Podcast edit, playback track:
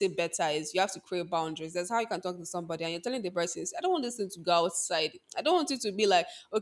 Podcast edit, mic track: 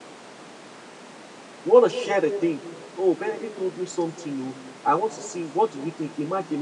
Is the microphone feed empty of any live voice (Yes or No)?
No